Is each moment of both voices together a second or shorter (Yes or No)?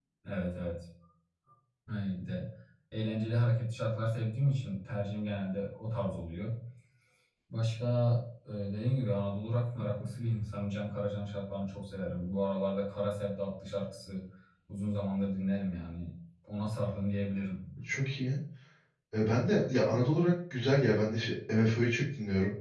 Yes